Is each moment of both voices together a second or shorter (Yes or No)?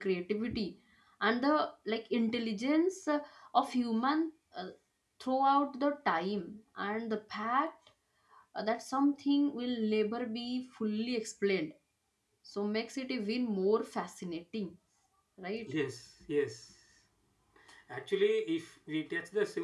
Yes